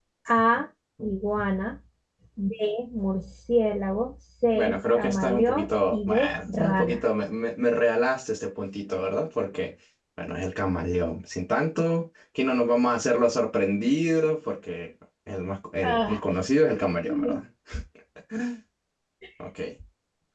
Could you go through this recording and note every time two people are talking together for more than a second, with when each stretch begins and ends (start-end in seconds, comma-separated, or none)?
4.5-7.0